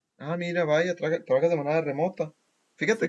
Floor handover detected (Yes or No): No